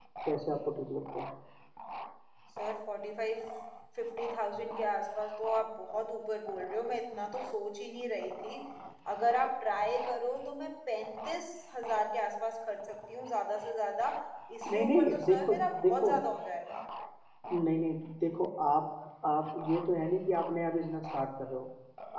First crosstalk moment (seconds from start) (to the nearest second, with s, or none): 15 s